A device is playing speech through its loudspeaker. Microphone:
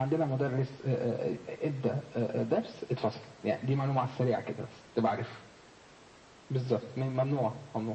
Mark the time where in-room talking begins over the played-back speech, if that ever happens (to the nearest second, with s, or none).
none